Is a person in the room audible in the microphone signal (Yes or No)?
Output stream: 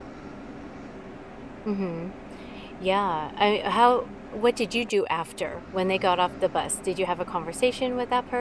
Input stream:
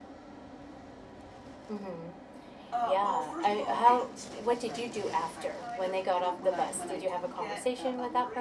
Yes